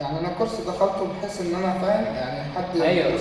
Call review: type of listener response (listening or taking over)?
taking over